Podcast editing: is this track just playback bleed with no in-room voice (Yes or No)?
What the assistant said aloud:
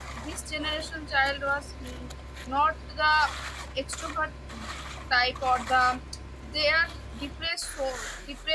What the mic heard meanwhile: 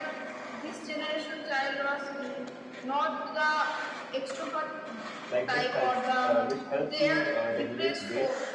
No